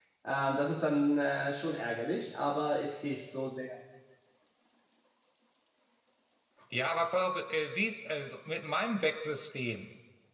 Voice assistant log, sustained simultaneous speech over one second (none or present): none